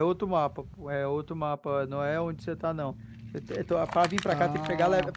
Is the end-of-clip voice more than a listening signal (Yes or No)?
No